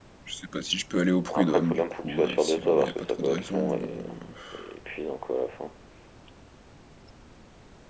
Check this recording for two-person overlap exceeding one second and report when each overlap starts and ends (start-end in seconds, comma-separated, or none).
1.3-3.9